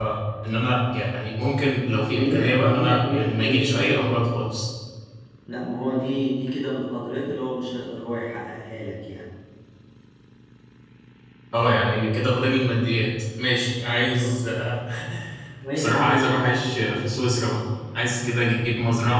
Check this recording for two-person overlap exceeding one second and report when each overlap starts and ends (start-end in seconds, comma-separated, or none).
2.2-4.0